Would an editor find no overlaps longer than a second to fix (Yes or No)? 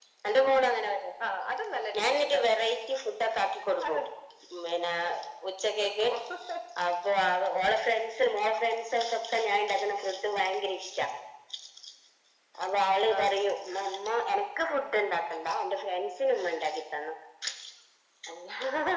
Yes